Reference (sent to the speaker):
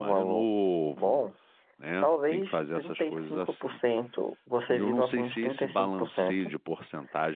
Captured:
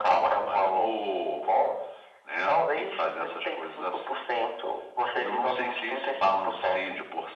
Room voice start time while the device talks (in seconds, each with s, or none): none